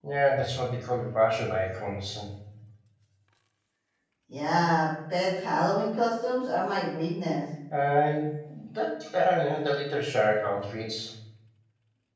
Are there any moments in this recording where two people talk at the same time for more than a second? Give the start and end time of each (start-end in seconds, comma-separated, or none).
none